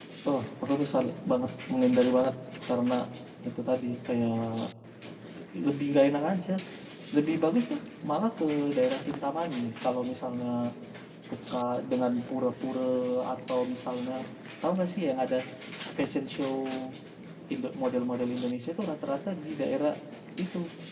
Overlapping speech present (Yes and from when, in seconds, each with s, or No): No